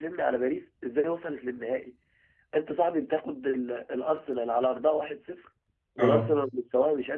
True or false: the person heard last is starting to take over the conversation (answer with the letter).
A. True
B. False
B